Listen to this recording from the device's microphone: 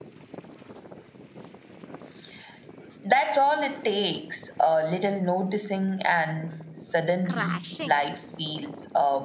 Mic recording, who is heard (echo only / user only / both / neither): both